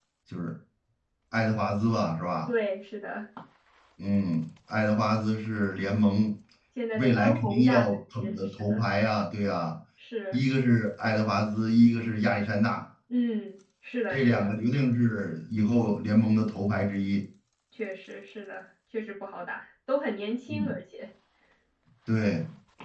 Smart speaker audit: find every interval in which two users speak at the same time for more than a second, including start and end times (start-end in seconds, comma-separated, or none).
7.0-8.8